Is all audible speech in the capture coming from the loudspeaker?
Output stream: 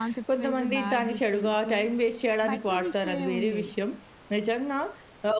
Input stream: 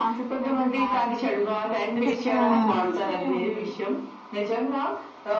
No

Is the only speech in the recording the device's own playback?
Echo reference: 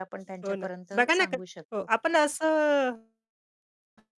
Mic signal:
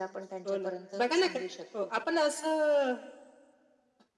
Yes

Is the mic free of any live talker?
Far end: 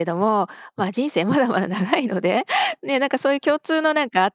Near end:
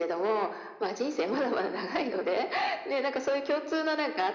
Yes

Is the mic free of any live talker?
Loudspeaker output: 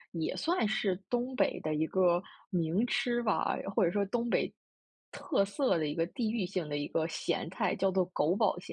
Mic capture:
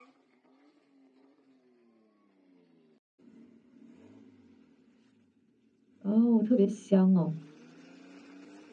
No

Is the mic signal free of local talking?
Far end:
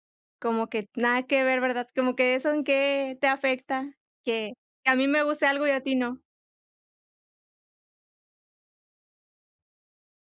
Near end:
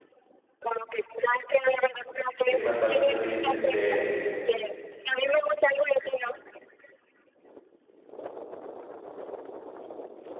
No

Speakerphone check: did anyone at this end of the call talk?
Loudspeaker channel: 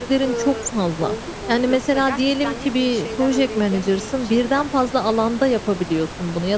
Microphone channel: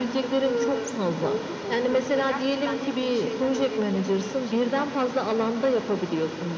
No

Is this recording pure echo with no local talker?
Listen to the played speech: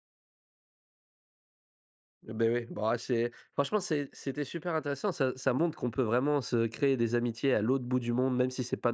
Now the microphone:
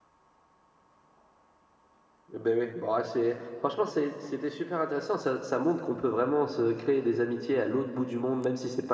Yes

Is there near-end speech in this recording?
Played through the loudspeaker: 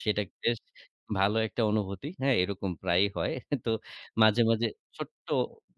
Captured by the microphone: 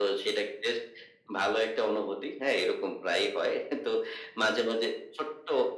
No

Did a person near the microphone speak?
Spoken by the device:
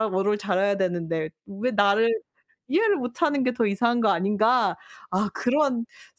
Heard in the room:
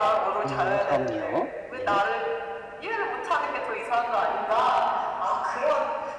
Yes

